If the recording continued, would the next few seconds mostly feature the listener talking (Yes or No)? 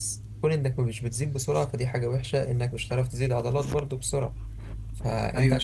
No